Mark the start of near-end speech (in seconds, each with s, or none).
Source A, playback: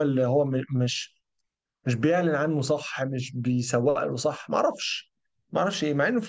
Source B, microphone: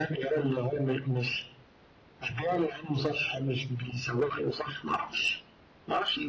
none